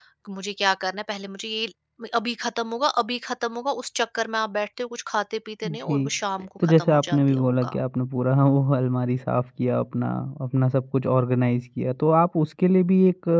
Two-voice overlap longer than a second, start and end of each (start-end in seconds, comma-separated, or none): 6.6-7.8